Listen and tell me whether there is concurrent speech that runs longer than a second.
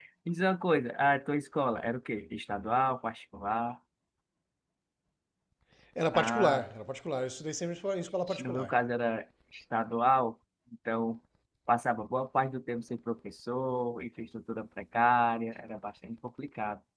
No

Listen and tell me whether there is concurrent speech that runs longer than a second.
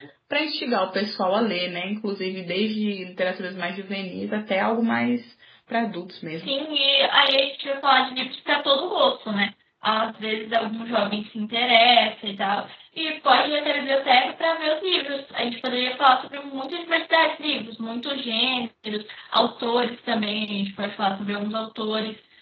No

